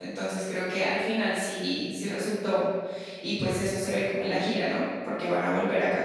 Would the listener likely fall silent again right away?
Yes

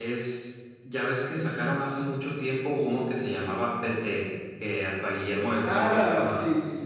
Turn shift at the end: Yes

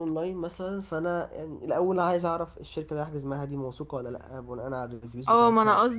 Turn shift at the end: Yes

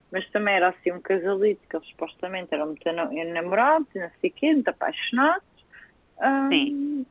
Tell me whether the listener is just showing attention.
Yes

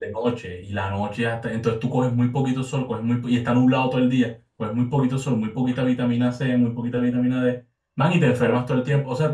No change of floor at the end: Yes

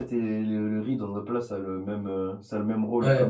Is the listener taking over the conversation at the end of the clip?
Yes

